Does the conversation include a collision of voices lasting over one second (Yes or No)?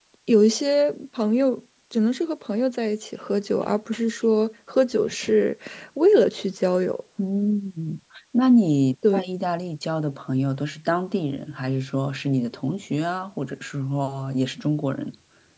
No